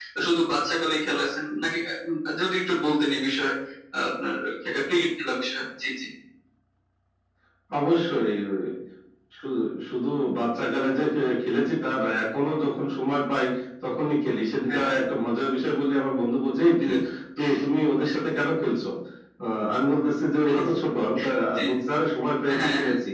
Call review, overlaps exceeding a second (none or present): none